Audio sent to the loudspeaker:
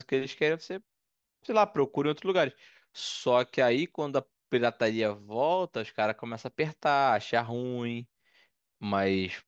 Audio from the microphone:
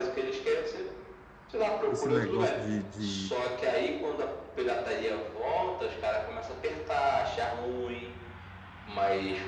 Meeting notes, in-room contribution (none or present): present